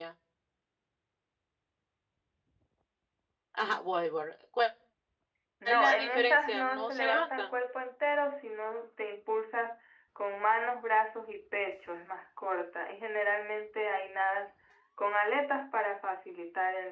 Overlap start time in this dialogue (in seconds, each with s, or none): 5.6 s